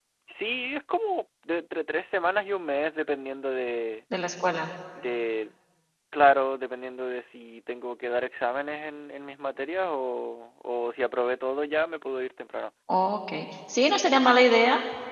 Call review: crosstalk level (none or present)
none